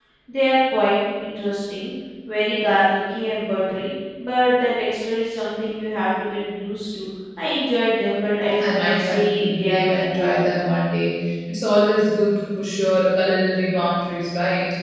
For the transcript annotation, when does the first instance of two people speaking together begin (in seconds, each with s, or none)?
8.4 s